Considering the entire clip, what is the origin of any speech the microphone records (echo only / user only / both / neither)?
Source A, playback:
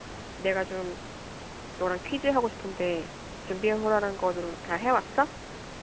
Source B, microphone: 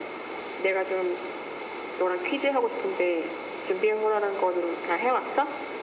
echo only